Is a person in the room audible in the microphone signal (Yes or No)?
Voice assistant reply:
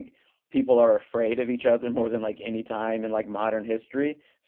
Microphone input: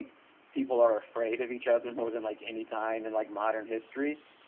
No